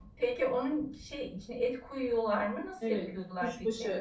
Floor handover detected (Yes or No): Yes